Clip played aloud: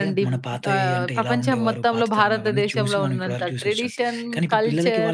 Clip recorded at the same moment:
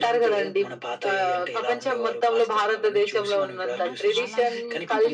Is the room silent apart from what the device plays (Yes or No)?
No